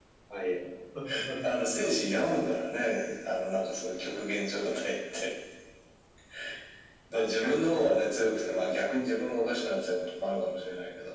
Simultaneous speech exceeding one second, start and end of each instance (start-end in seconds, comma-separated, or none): 7.1-8.6